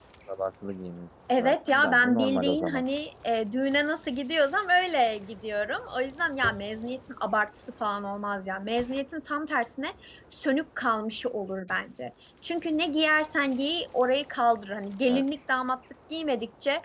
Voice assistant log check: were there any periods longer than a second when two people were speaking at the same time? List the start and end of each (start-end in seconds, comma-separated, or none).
1.4-2.8